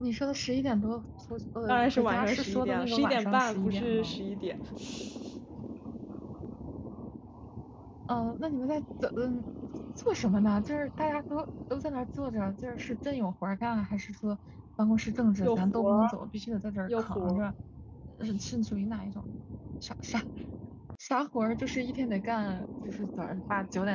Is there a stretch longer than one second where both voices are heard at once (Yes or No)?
Yes